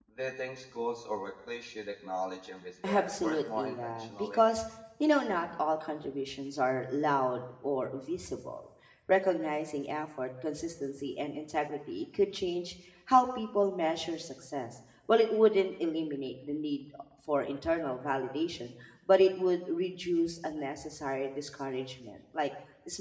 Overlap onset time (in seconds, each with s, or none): 2.8 s